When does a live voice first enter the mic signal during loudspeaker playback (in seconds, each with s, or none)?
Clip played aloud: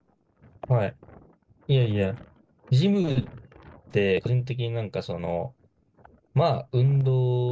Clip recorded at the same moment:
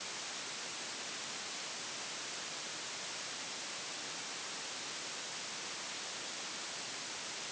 none